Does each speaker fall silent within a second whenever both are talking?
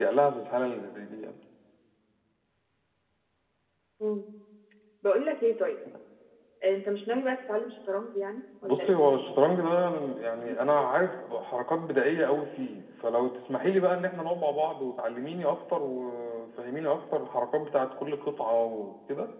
Yes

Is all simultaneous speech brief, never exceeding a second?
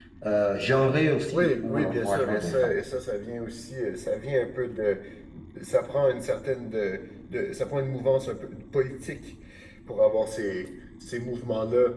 No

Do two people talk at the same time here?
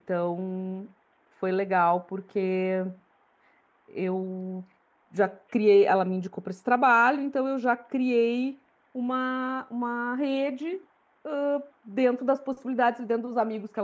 No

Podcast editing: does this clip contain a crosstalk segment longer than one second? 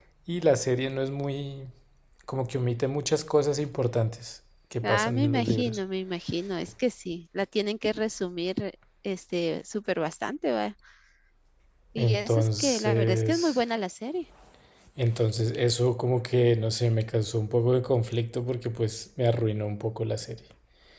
Yes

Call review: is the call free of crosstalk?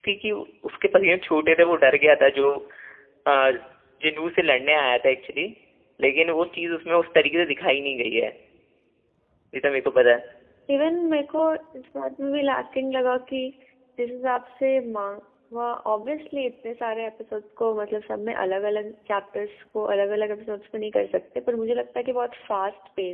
Yes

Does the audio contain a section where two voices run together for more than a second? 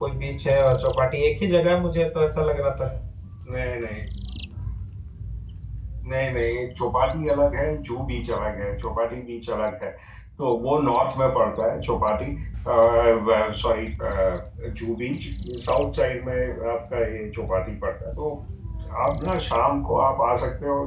No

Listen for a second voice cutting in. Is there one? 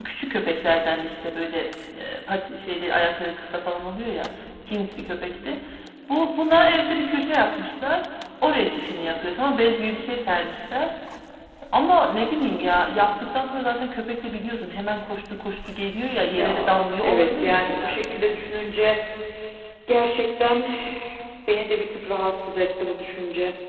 Yes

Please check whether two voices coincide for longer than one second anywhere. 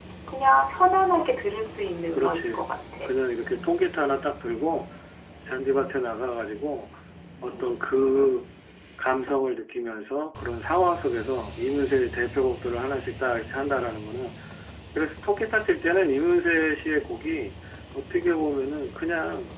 No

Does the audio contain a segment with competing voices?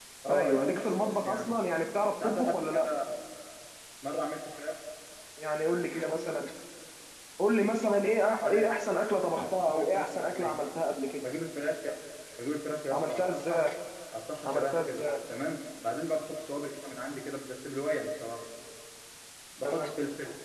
Yes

